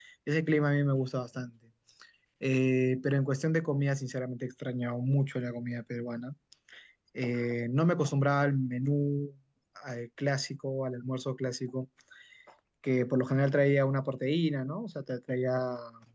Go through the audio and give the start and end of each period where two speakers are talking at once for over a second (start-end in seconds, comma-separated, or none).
none